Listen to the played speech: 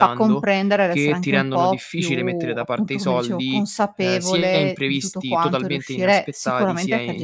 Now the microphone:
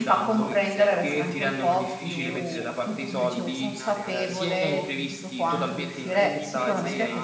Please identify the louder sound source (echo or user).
echo